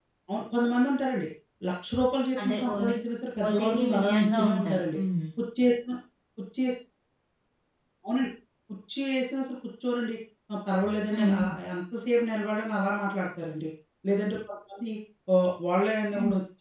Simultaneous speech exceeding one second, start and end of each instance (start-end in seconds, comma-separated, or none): 3.5-5.0